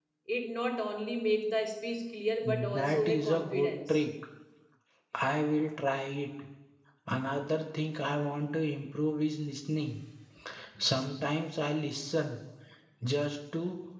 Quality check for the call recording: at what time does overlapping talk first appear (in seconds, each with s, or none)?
2.4 s